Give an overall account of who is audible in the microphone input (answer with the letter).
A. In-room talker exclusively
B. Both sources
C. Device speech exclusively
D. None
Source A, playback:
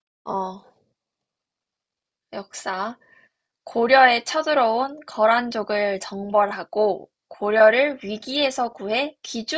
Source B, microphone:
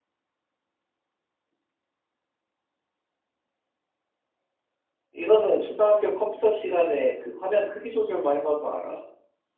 A